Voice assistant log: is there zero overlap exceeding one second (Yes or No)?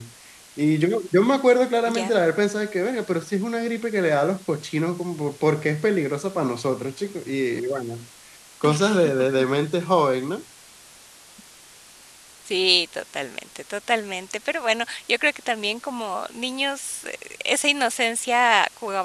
Yes